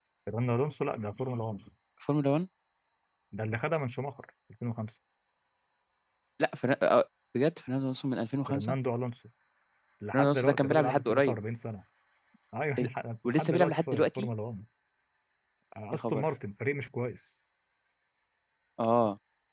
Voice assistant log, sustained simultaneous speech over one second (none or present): present